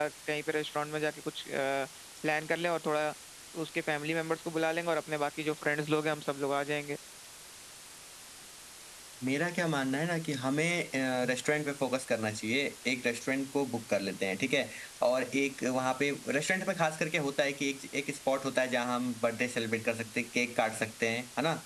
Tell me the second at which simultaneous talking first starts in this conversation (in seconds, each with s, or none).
none